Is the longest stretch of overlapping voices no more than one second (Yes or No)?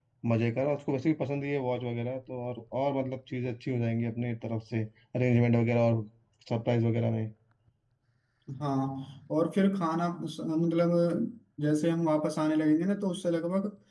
Yes